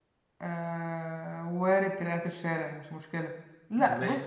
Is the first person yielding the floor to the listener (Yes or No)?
No